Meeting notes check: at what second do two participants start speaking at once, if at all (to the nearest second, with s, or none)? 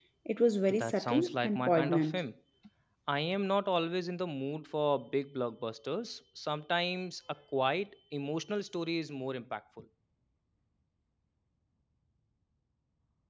1 s